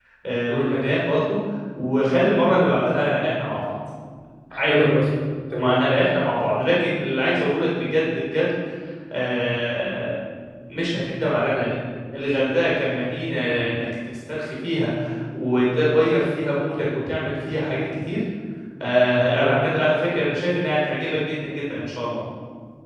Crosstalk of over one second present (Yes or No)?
No